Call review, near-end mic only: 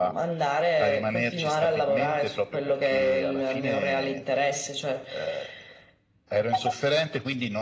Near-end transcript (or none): none